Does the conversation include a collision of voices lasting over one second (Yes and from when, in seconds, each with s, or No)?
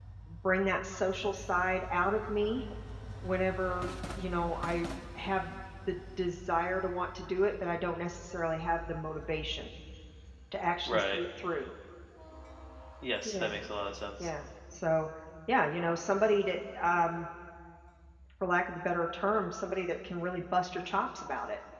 No